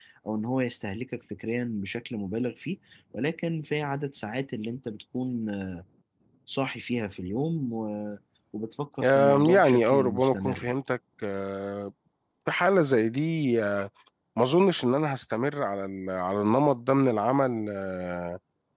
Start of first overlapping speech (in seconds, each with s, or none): 9.0 s